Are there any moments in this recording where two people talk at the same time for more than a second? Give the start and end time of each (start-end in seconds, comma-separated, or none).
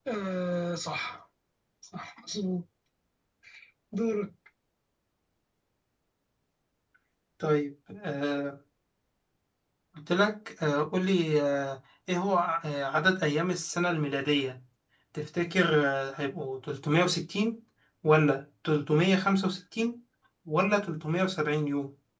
none